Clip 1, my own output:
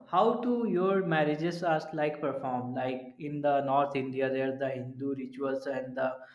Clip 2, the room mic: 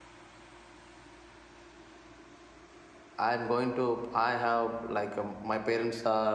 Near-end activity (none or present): present